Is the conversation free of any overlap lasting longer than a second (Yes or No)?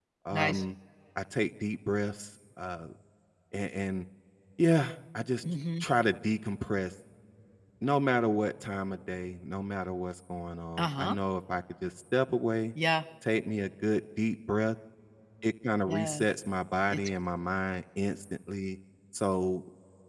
Yes